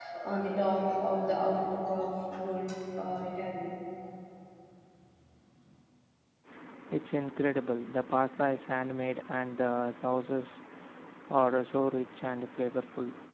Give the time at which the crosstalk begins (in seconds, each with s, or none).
none